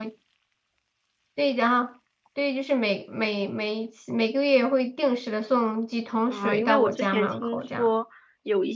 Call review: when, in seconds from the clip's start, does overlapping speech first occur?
6 s

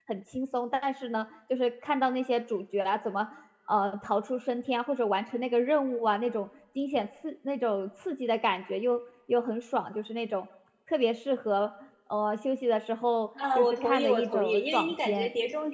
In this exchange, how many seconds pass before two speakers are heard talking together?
13 s

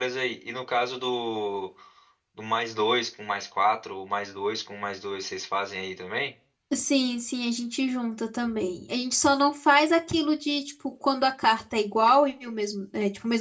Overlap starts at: none

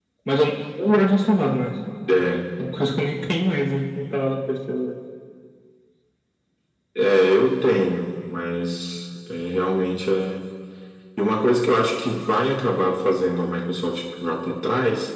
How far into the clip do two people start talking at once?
none

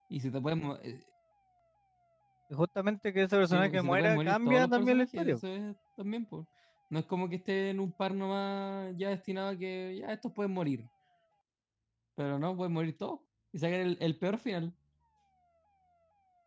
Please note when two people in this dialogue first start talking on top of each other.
4 s

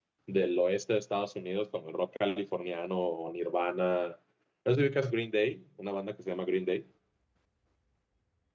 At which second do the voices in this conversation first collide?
none

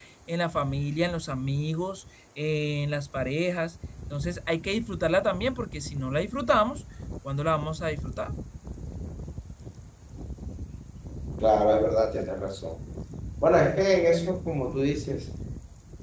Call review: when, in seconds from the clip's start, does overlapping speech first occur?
none

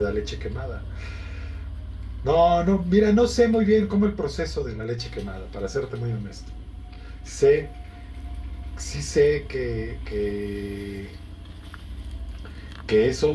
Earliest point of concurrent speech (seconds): none

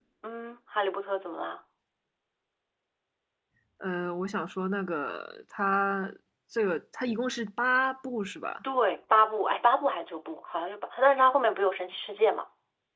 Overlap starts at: none

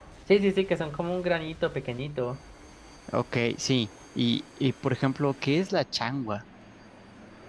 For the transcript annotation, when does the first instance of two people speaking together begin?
none

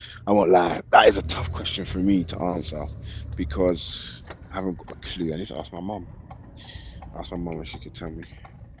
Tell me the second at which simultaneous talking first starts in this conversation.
none

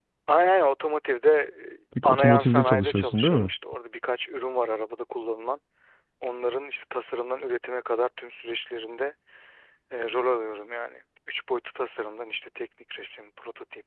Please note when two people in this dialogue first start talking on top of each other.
2 s

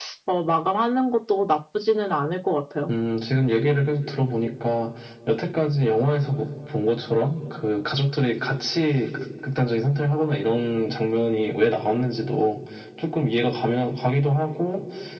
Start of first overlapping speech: none

